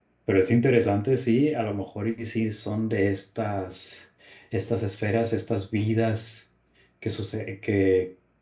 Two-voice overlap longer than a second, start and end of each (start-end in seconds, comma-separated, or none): none